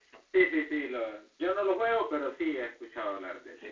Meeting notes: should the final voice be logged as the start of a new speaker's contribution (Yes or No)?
Yes